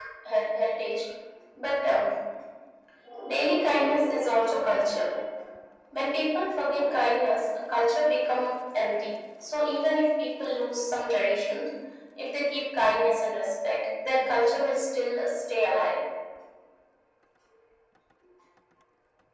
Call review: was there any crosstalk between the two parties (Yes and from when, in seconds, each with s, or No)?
No